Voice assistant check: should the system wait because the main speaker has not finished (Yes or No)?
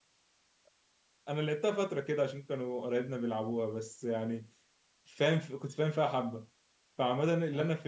Yes